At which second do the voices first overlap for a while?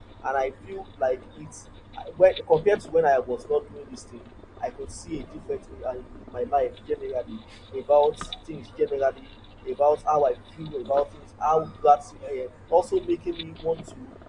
none

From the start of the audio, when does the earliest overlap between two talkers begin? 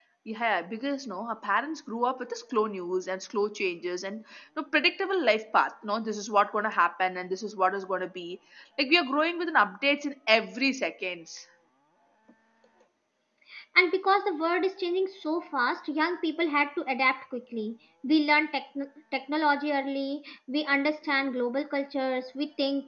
none

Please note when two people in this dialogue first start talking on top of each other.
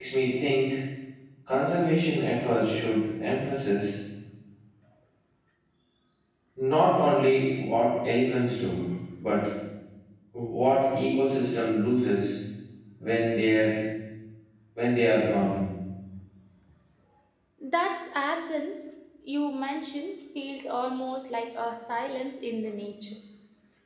none

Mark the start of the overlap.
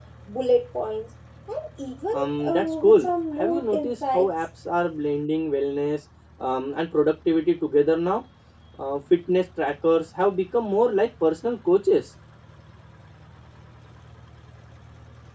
2.1 s

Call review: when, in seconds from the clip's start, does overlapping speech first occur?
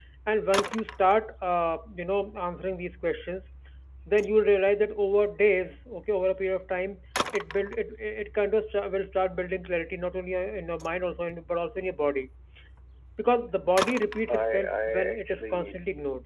14.3 s

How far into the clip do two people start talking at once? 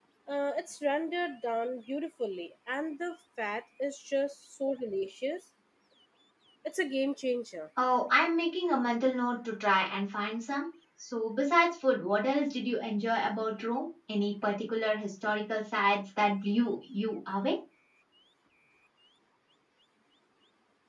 none

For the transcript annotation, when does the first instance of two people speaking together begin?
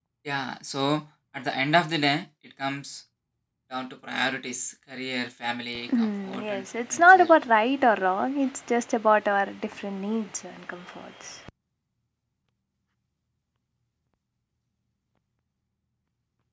5.9 s

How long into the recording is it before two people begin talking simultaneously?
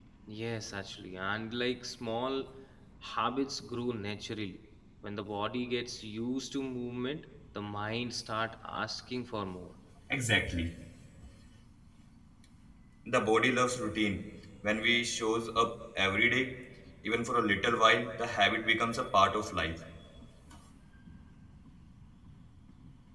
none

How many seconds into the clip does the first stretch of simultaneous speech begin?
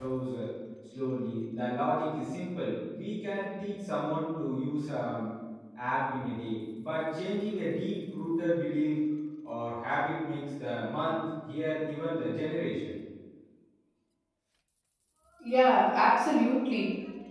none

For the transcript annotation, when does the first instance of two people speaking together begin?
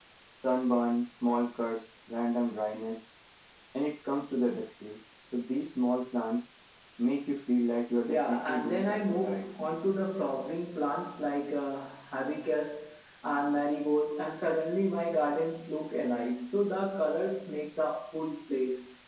8.1 s

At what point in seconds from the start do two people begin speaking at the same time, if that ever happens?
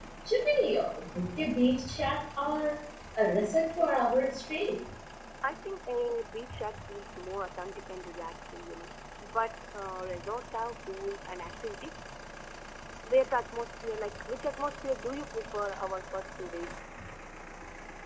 none

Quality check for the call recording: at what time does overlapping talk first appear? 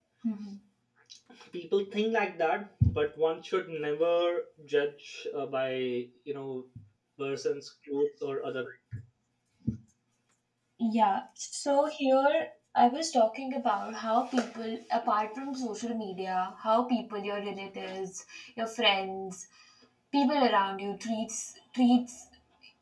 none

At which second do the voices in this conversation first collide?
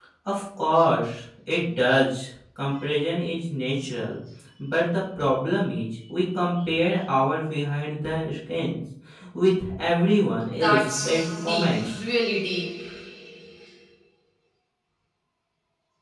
10.5 s

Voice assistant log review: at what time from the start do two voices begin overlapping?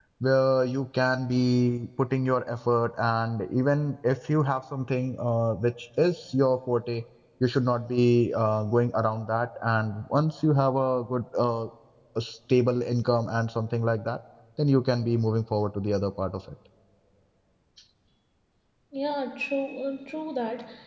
none

